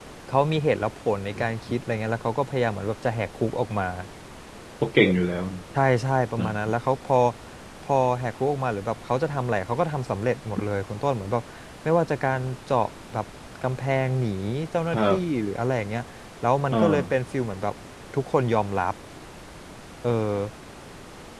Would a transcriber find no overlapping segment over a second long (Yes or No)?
Yes